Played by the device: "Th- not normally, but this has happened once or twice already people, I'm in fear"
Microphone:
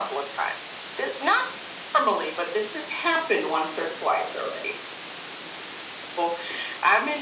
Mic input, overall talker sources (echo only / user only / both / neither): echo only